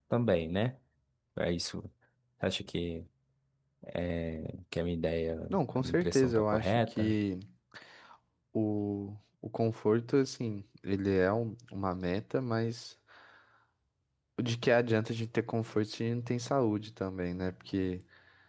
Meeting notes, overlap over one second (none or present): present